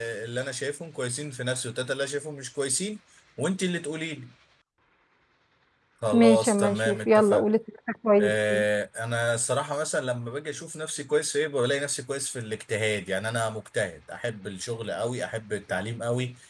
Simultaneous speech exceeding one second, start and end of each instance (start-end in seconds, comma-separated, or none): 6.1-7.4